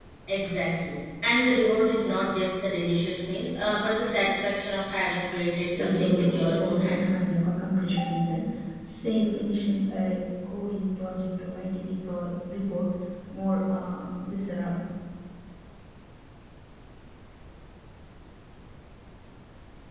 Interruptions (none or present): present